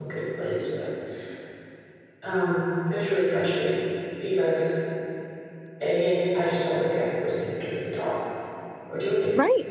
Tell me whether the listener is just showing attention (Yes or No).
No